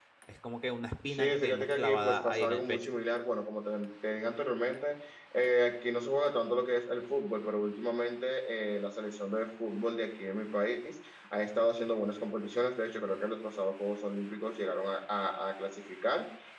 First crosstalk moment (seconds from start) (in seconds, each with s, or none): 1.1 s